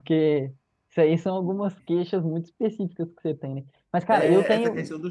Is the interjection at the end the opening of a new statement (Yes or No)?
Yes